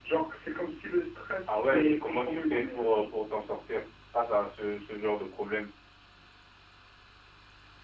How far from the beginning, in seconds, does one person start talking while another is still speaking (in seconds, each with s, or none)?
1.5 s